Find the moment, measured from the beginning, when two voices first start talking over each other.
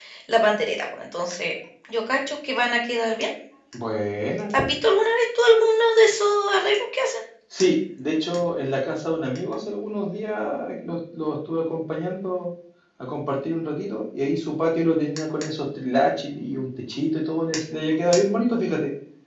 none

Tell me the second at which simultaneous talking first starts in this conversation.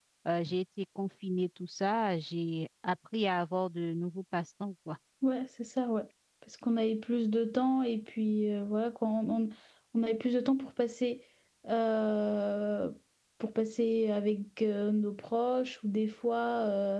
none

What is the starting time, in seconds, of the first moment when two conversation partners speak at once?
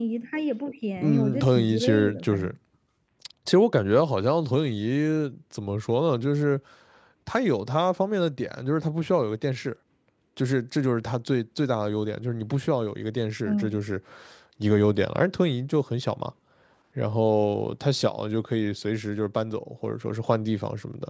1.0 s

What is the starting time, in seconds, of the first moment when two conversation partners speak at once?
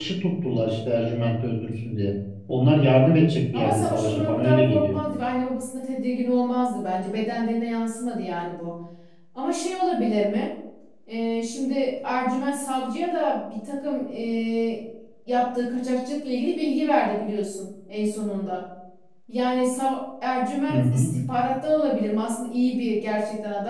3.5 s

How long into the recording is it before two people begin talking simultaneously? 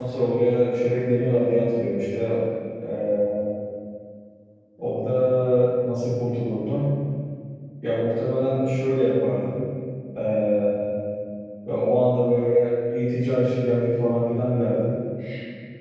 none

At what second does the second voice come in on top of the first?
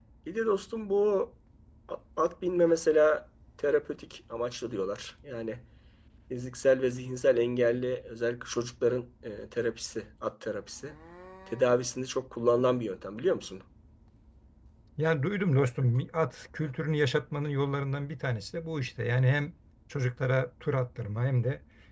none

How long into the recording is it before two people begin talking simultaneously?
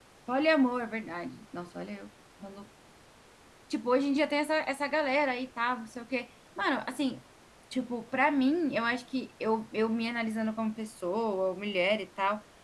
none

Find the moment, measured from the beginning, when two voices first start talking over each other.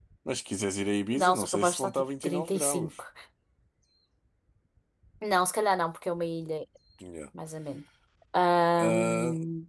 1.1 s

